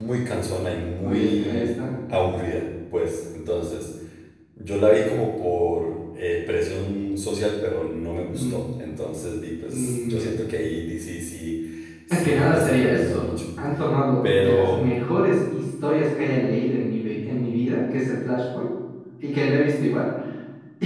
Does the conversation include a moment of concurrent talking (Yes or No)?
Yes